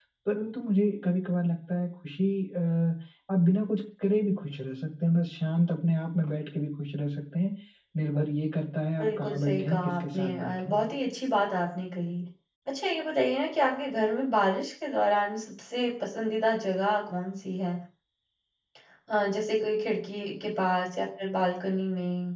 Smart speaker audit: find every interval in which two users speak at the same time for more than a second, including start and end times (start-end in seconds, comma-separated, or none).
9.0-10.9